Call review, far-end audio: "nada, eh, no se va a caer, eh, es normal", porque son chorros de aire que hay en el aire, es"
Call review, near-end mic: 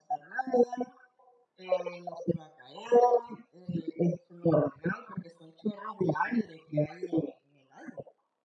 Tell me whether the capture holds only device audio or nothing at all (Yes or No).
Yes